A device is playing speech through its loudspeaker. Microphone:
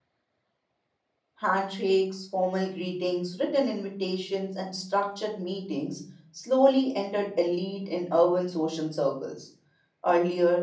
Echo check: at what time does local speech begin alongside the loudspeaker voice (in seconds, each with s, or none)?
1.4 s